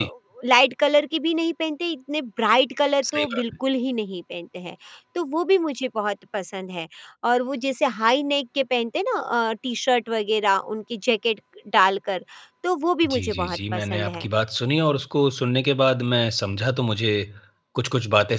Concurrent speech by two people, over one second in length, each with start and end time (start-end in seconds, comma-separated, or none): 13.1-14.2